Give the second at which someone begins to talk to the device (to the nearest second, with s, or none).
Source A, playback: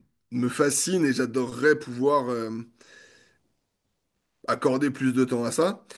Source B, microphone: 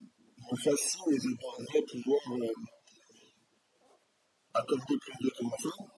none